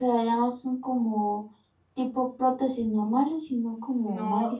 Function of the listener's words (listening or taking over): taking over